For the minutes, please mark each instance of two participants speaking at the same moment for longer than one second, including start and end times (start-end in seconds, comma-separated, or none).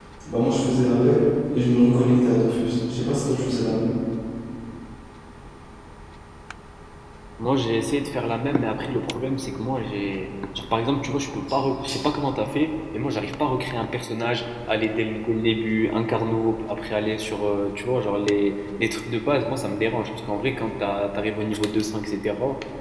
none